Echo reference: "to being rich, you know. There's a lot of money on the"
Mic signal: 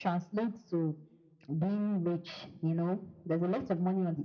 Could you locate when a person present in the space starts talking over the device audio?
none

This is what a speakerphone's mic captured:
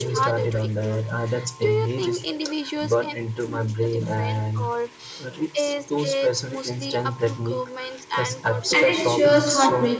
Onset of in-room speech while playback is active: 9 s

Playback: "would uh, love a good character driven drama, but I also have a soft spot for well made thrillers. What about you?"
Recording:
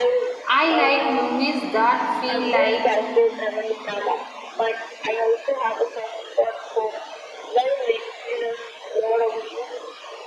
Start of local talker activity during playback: 0 s

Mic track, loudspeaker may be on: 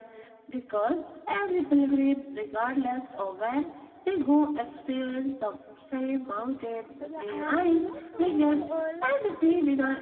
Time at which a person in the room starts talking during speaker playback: 7 s

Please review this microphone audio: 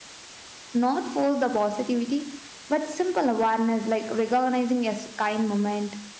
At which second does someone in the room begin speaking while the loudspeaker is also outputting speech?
1 s

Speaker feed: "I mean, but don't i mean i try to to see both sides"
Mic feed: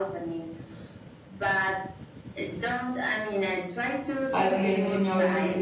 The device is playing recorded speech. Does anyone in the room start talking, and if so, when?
4 s

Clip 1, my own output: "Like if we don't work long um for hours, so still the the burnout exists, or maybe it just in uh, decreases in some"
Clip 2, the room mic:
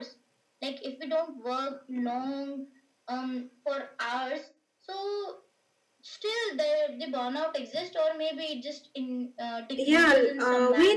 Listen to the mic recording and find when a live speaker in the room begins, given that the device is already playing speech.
10 s

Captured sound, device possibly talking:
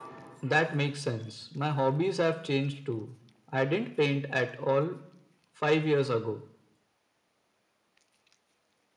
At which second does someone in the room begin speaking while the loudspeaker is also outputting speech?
none

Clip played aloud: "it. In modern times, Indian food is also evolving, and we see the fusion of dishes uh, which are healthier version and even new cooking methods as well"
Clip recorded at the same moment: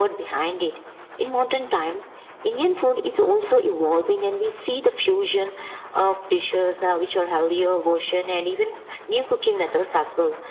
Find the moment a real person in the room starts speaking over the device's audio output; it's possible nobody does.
none

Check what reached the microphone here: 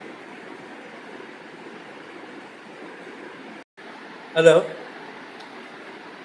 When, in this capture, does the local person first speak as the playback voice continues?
4 s

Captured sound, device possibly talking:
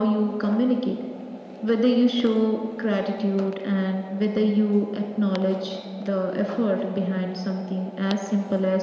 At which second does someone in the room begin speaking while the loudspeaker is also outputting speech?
none

